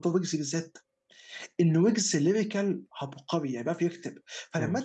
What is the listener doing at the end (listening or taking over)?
listening